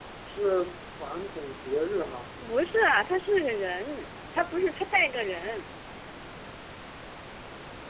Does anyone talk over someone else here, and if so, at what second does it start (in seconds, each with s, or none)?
none